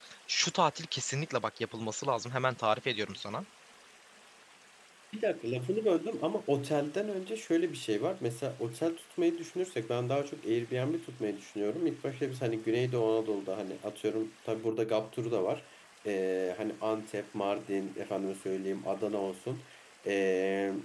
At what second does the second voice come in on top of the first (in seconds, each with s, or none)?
none